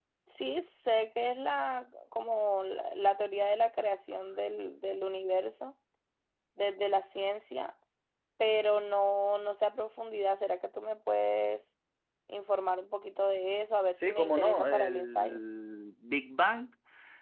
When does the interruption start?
14 s

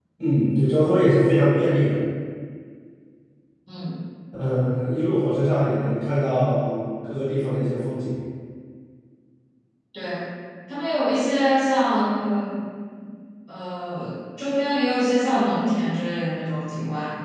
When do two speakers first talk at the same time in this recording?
none

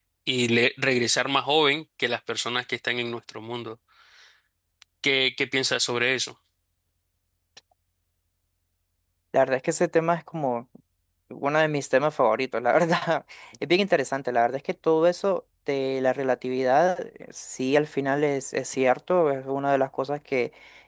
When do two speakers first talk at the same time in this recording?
none

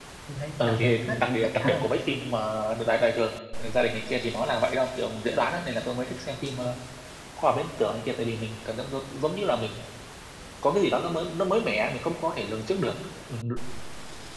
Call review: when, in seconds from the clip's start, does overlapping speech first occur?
1 s

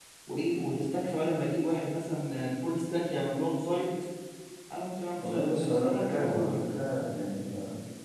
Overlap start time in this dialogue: 5 s

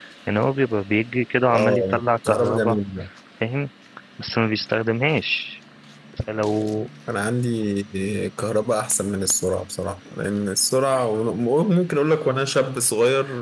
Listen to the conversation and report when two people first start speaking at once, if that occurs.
2 s

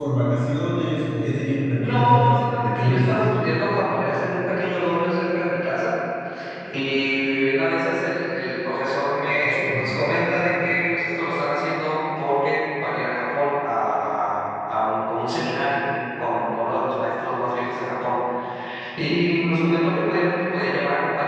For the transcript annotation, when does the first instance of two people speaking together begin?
2 s

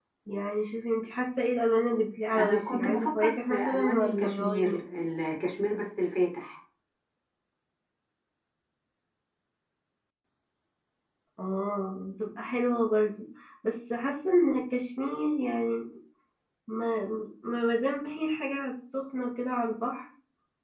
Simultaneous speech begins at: 2 s

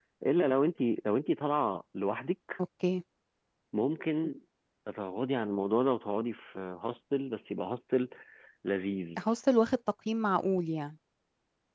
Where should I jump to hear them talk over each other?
none

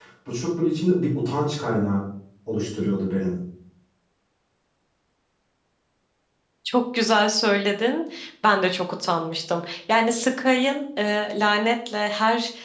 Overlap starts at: none

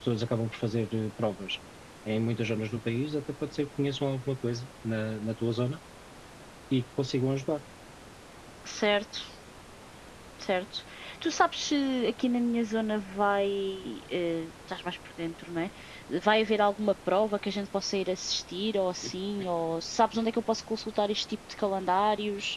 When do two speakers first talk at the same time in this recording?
none

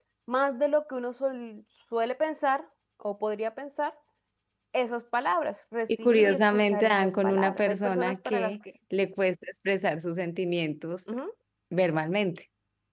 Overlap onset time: 6 s

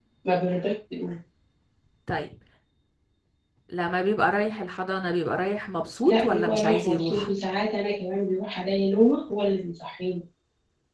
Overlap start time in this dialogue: 6 s

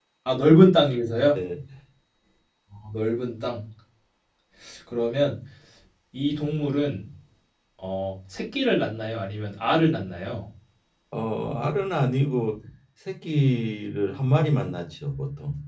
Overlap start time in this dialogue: none

